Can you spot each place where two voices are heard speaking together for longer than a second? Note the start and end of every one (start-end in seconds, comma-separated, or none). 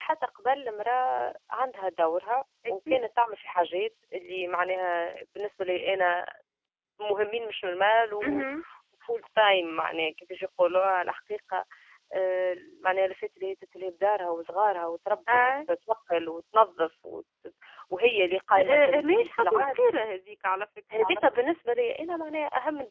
18.5-19.8